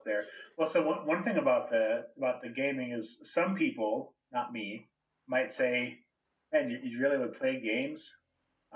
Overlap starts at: none

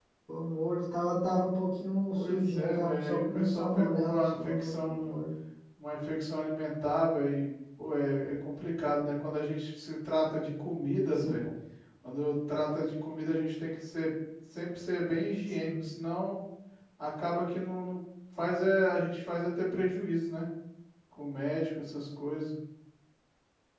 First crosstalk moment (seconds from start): 2.1 s

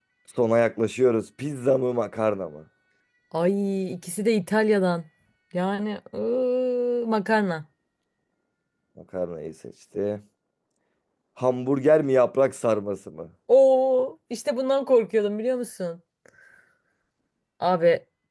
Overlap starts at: none

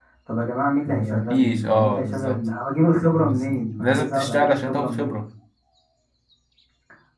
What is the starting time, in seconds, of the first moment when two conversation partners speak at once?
0.9 s

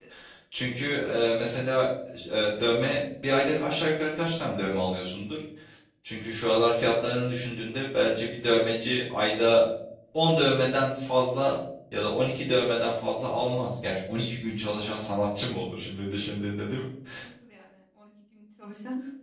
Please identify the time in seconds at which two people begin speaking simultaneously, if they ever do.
none

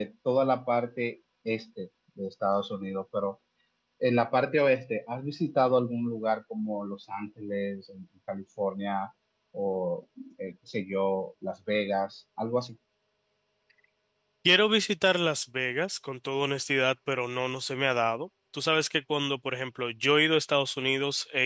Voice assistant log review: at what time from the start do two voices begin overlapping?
none

